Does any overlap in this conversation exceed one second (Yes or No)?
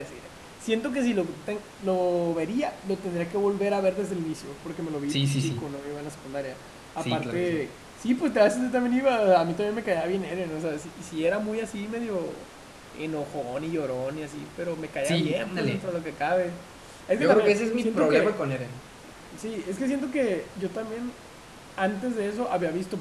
Yes